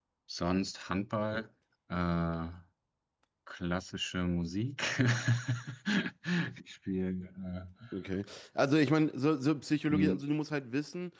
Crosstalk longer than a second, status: none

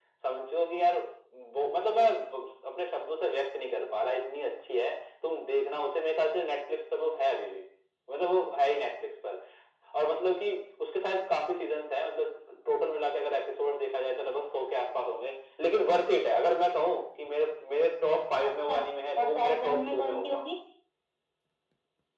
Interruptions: present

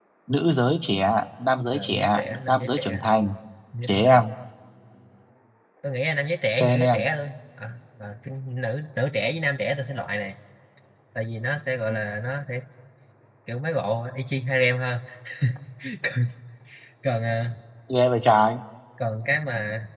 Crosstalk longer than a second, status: present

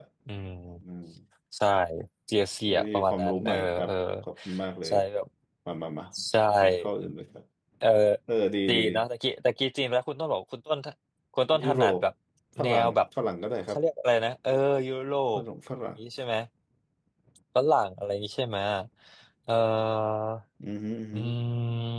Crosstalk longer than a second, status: present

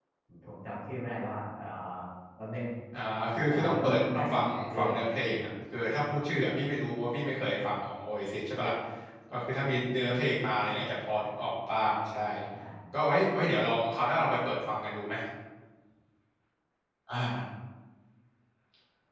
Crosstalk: present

